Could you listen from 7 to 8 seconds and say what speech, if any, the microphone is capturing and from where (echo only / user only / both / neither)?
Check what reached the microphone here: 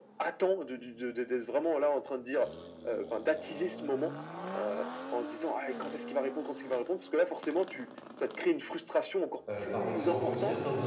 echo only